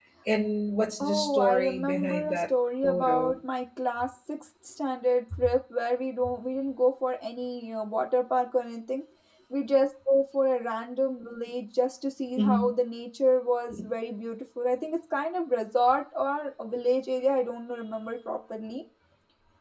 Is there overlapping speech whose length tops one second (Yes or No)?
Yes